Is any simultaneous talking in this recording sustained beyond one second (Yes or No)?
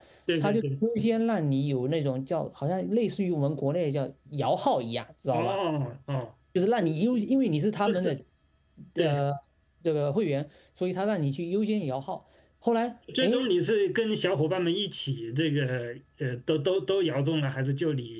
No